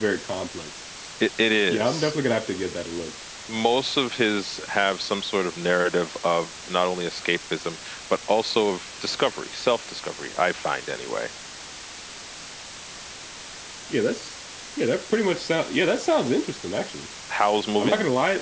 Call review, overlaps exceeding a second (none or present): none